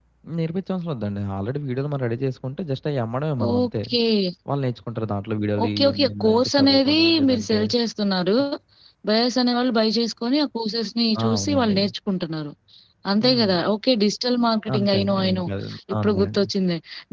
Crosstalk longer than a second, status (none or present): present